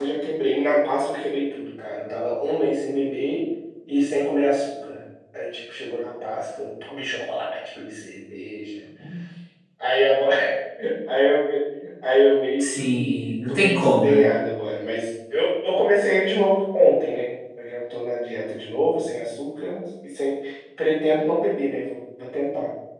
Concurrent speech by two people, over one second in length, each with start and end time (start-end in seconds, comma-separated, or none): 12.6-14.3